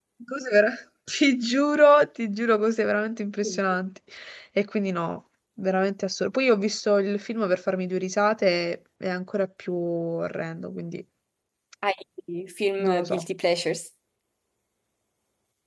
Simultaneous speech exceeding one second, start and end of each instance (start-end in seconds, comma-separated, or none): none